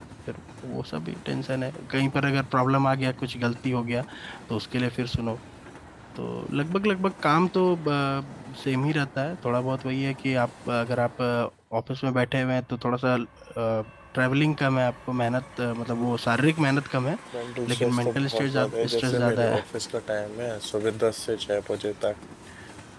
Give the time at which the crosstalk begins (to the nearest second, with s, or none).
18 s